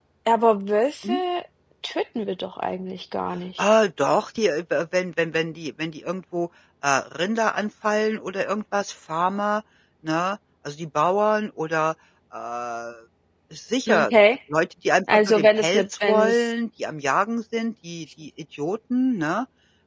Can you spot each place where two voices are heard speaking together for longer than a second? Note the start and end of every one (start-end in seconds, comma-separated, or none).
15.1-16.5